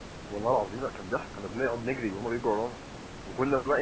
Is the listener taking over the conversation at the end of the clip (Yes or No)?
No